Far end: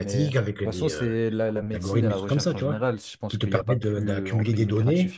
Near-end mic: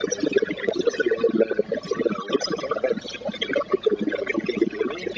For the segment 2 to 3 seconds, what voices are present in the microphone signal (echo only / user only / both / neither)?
echo only